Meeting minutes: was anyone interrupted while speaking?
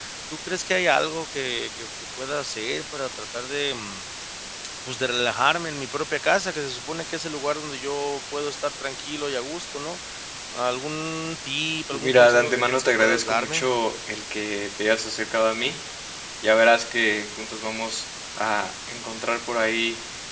Yes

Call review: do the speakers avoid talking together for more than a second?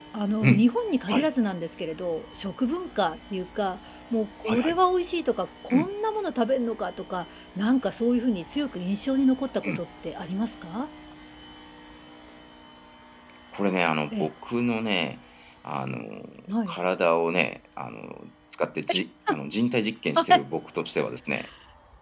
Yes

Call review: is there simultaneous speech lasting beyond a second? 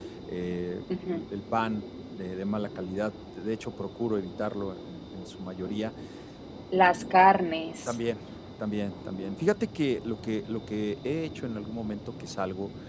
No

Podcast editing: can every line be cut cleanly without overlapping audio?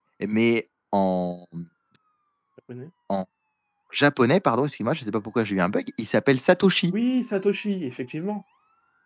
Yes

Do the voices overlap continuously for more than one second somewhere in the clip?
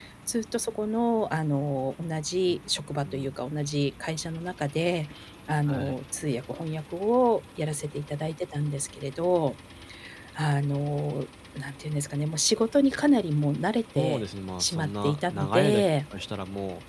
Yes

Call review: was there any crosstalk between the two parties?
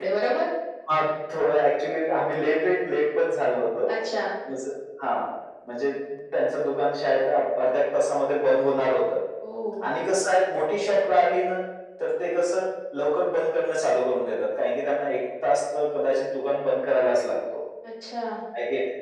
No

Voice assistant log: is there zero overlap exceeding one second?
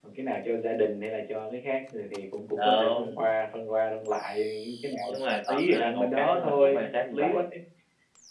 No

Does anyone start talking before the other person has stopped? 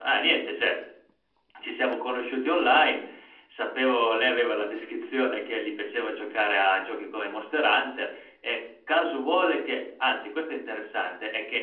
No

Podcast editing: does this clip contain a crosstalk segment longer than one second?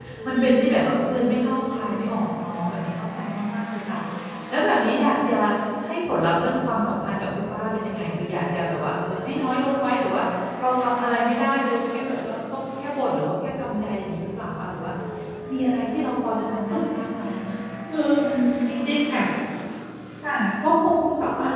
No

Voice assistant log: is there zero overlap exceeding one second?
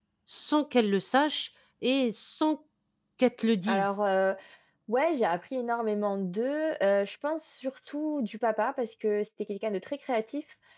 Yes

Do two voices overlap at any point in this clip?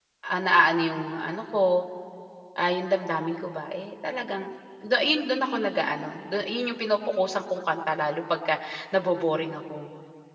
No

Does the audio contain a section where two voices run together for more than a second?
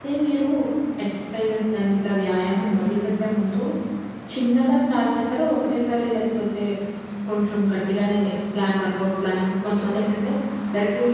No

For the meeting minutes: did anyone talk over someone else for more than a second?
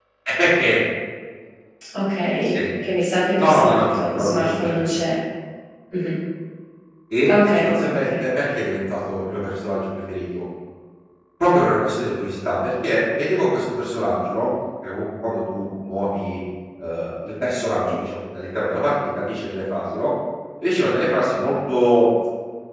Yes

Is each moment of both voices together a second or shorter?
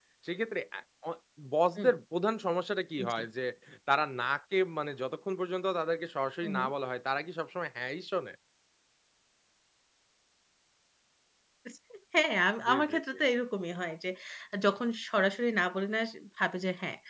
Yes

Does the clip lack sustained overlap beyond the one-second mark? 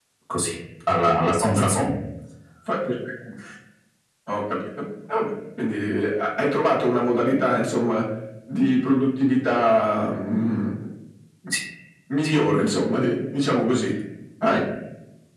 Yes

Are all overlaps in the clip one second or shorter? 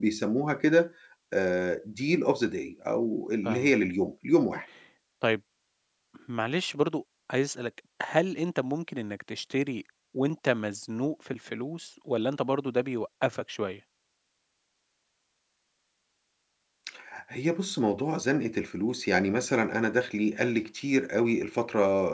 Yes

